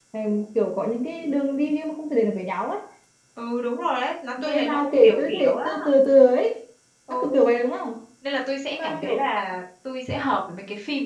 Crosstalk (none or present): present